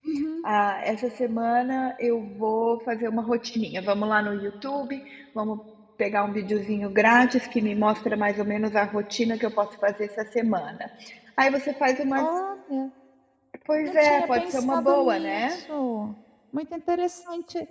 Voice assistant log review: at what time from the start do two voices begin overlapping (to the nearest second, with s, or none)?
14 s